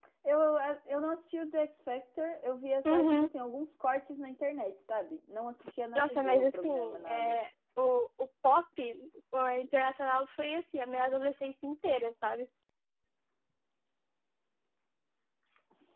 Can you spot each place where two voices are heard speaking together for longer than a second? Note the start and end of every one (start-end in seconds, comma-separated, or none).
6.0-7.3